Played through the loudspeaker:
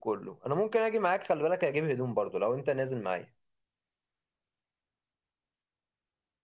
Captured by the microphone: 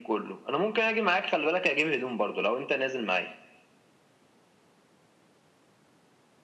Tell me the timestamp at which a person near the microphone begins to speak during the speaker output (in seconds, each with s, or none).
none